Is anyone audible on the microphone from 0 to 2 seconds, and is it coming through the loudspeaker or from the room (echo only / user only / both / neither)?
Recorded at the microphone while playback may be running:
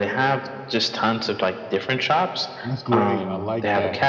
echo only